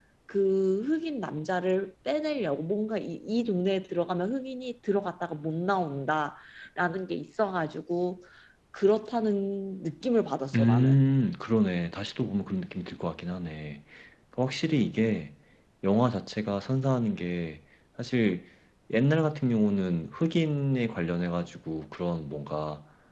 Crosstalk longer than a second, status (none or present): none